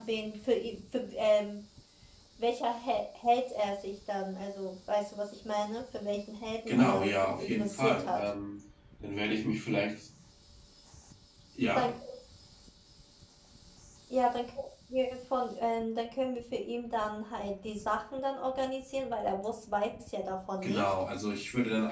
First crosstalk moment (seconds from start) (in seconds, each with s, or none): 6.7 s